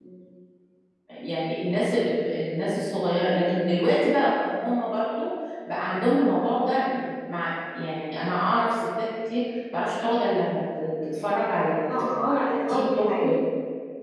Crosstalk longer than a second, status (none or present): present